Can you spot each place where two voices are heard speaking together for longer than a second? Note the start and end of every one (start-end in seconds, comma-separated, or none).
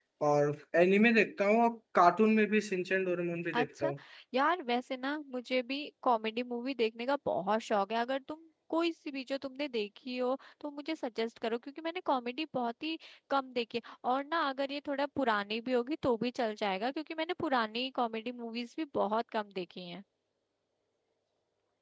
none